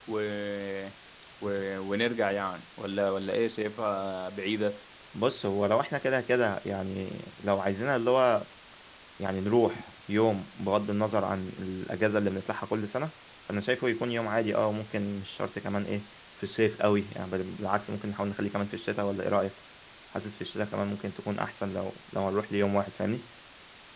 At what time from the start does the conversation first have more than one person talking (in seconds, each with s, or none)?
none